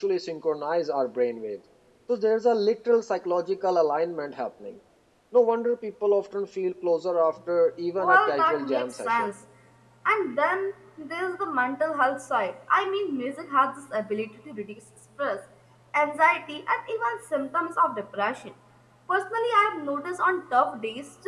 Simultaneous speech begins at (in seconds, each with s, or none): 8.0 s